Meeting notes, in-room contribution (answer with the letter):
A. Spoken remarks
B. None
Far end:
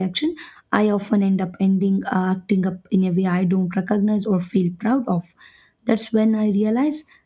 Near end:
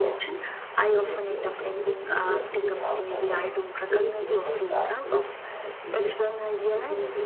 A